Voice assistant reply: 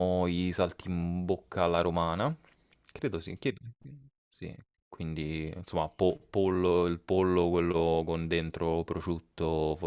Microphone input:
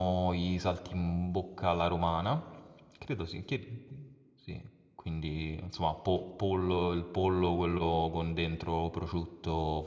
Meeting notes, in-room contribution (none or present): none